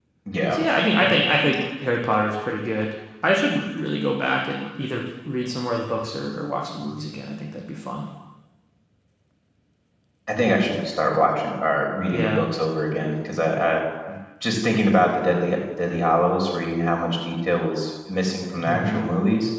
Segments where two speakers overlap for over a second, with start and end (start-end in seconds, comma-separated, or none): none